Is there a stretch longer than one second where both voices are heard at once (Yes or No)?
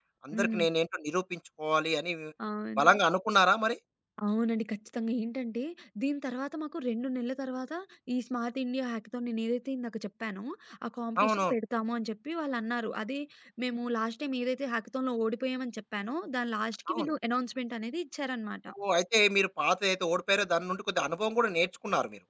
No